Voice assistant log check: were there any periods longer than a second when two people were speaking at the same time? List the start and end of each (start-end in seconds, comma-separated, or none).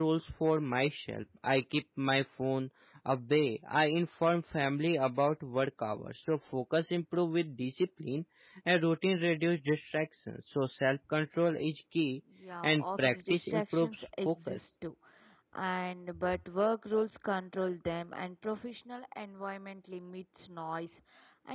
12.6-14.6